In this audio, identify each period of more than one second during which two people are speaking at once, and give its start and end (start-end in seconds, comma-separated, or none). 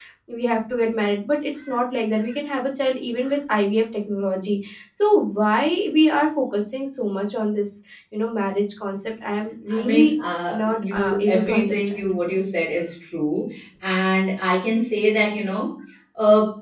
10.5-12.1